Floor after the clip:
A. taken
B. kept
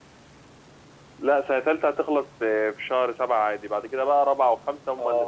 A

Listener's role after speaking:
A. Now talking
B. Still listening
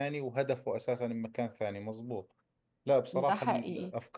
B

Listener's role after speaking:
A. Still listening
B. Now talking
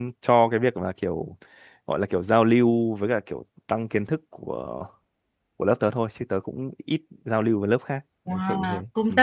B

